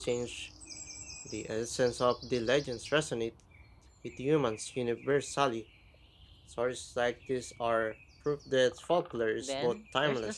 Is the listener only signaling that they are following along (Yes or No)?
No